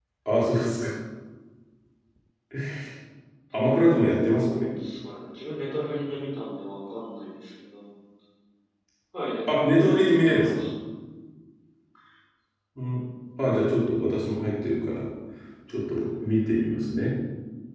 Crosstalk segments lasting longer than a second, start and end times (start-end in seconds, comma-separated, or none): 9.5-10.7